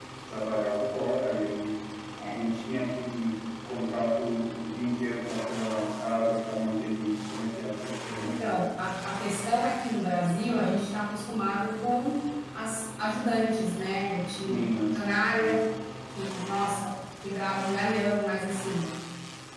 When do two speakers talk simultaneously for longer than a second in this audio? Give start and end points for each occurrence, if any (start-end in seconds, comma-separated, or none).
none